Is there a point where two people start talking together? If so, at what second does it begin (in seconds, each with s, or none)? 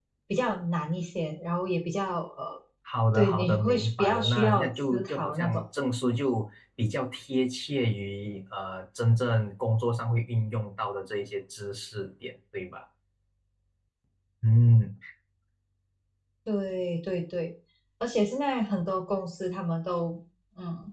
3.1 s